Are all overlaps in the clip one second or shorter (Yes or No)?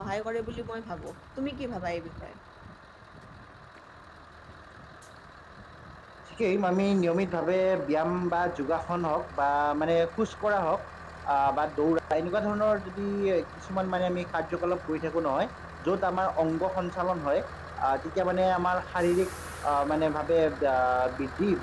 Yes